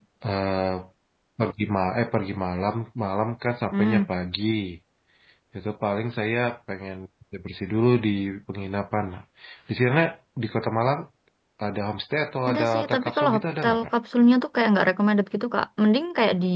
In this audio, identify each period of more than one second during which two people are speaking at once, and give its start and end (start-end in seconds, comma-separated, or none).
12.5-13.8